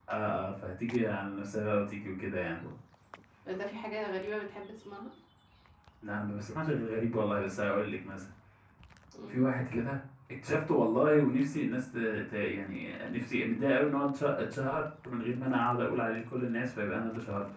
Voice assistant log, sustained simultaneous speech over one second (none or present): none